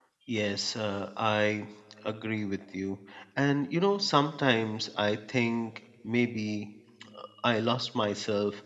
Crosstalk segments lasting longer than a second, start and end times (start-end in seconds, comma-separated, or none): none